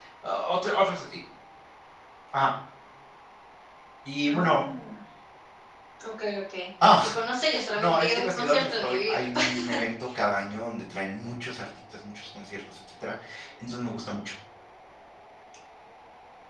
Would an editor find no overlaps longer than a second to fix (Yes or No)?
No